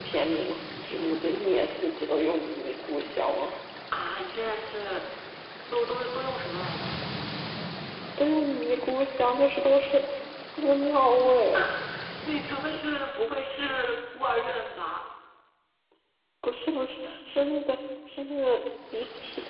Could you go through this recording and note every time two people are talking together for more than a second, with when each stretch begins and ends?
none

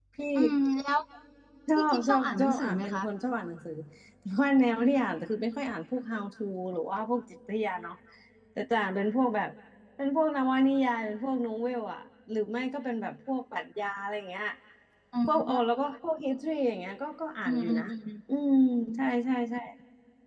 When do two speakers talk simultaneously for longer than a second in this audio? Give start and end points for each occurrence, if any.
1.8-3.0

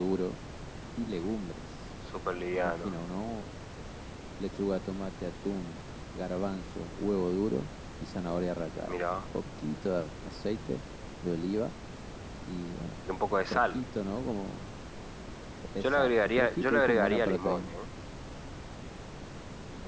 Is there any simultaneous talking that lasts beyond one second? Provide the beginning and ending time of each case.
15.8-17.8

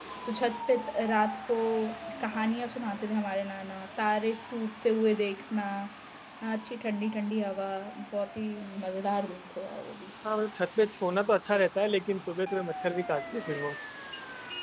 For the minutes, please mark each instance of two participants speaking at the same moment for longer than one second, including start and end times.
none

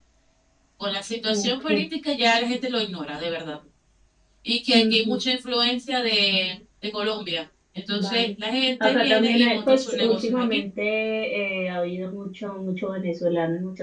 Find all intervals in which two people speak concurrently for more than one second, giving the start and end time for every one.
8.8-10.6

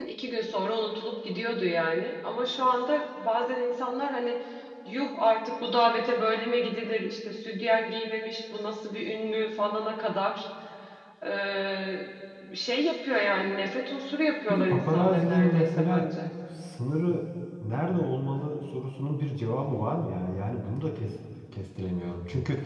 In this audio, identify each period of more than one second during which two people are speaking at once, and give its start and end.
14.5-16.2

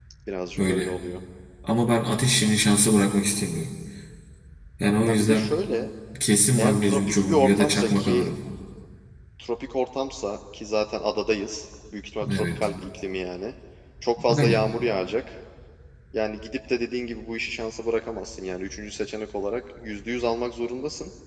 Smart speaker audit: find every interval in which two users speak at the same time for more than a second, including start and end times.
6.6-8.3

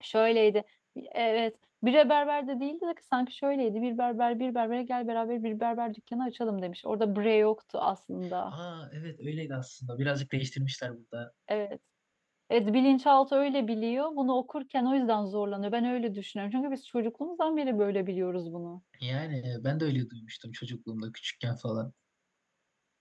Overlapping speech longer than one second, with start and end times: none

